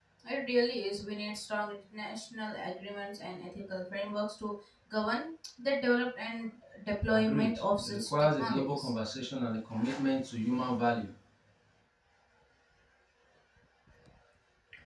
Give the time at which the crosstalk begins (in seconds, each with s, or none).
7.1 s